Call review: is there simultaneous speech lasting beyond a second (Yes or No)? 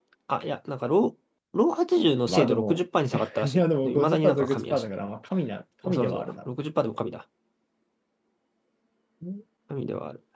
Yes